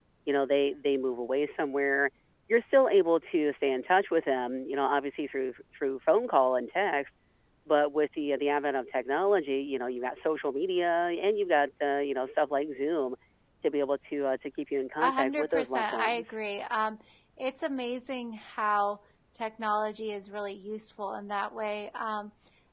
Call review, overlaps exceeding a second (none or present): present